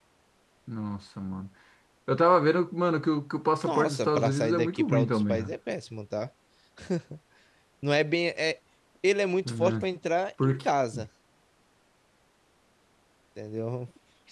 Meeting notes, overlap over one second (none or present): present